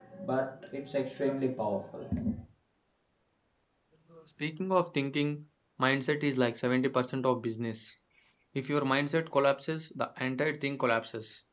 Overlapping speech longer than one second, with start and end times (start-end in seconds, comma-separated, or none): none